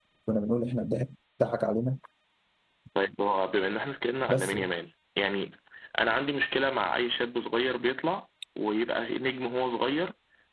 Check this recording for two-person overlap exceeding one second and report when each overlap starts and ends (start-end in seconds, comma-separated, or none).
none